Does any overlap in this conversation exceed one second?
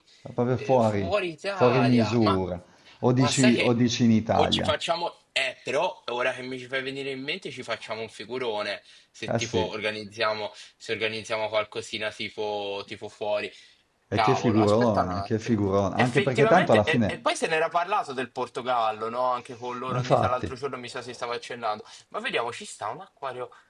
Yes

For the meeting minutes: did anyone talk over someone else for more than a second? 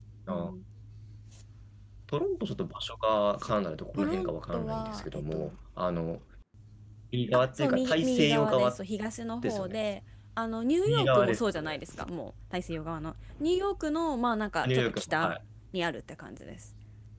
Yes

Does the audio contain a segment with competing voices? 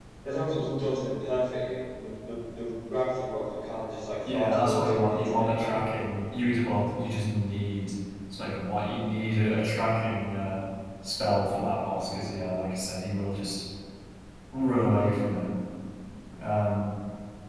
Yes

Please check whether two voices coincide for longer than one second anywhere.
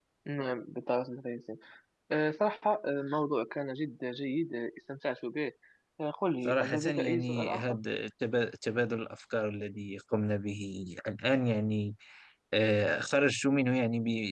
Yes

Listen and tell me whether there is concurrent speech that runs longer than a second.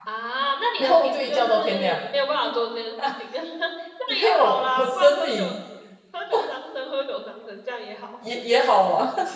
Yes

